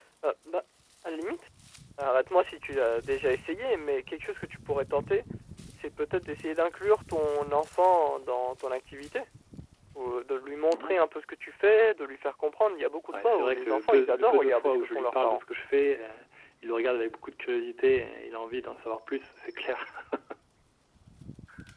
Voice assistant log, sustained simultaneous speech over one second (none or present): present